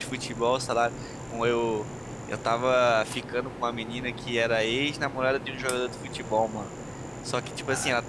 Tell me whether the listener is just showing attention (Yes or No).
Yes